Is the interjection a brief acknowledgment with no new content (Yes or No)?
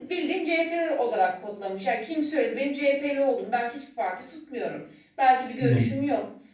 Yes